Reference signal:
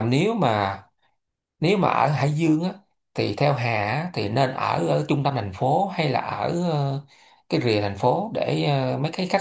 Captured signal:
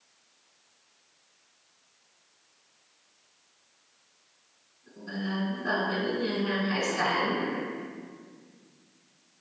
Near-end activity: present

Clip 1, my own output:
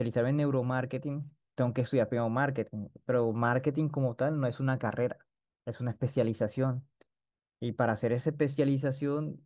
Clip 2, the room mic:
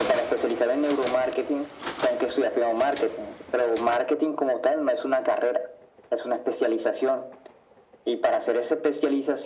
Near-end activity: none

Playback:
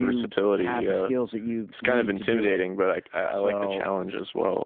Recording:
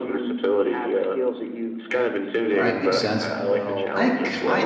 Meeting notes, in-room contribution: present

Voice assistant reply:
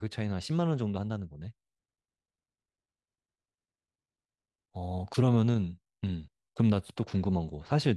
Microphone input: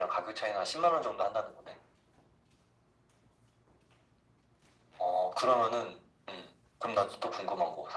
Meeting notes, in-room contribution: none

